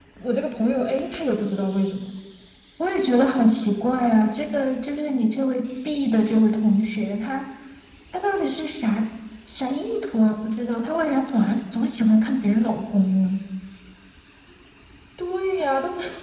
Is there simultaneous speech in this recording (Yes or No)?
No